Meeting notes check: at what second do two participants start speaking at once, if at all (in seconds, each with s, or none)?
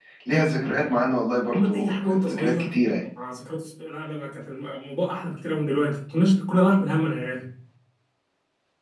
1.5 s